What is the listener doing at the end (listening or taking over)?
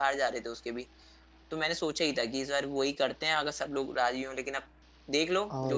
taking over